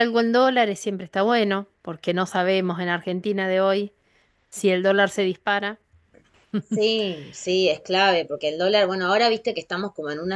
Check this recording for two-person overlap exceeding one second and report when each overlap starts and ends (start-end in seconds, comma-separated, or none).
none